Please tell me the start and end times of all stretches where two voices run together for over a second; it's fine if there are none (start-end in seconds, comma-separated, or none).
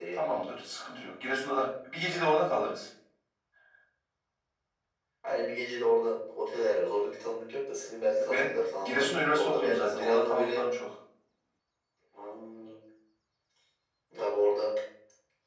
8.2-10.6